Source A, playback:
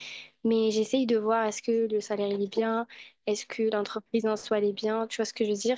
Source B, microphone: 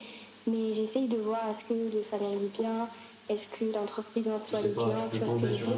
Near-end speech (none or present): present